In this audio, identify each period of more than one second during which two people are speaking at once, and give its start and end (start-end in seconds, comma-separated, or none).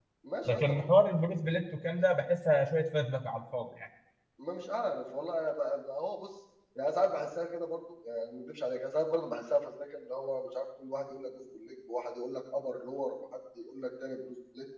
none